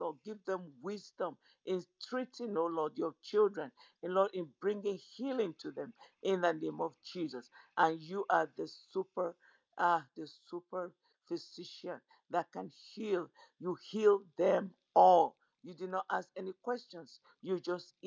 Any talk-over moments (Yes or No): No